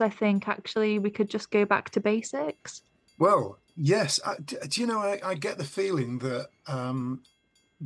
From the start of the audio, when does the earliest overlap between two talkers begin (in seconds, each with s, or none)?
none